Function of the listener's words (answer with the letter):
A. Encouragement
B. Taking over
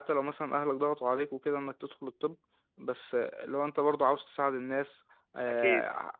A